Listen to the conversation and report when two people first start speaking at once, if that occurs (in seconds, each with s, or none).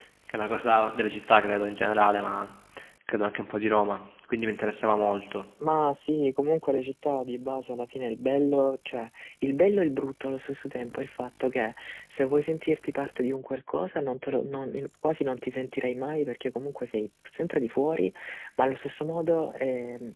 none